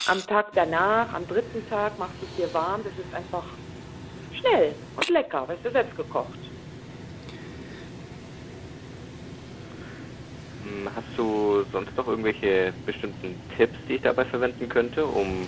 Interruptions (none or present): none